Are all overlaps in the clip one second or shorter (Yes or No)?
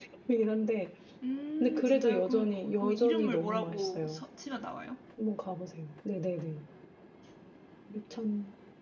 No